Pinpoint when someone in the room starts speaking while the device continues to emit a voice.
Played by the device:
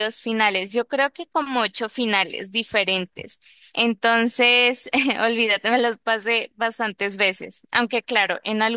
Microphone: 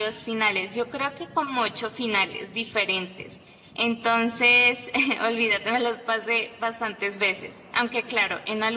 none

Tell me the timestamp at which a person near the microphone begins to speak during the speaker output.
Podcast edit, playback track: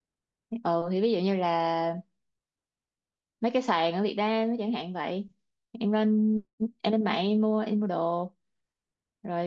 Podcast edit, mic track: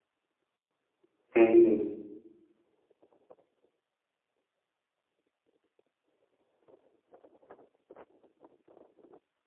1.3 s

